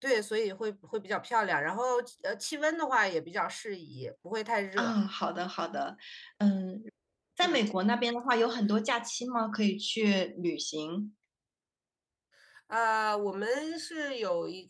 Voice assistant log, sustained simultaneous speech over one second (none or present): none